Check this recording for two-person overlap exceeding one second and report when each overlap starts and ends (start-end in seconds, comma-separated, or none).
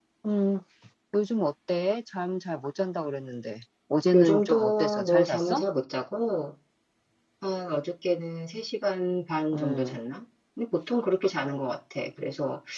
4.1-5.6